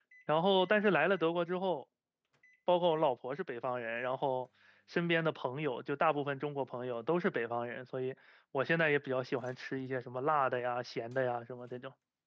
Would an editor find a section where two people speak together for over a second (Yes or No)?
No